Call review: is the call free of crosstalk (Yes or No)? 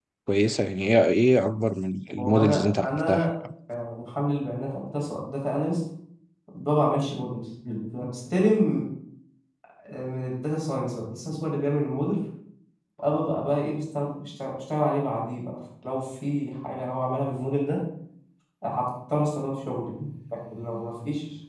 No